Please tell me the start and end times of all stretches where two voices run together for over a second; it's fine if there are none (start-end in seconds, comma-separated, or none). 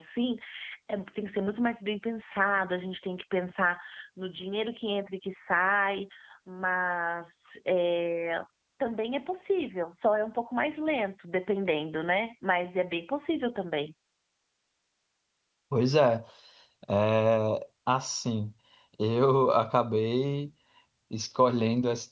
none